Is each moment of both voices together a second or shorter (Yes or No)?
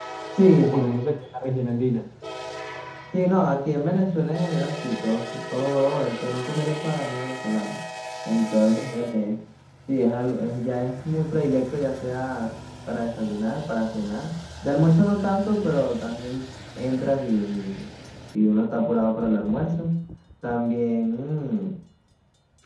Yes